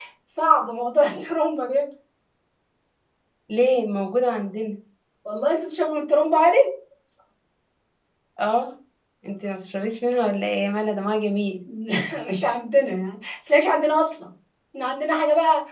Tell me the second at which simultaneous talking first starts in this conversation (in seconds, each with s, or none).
none